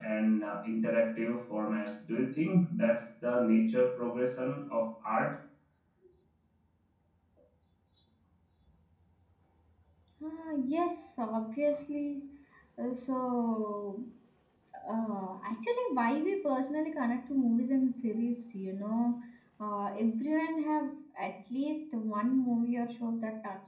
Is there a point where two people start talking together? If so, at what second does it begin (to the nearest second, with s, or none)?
none